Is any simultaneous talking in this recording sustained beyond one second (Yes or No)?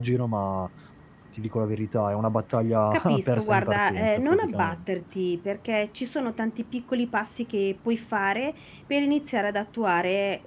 Yes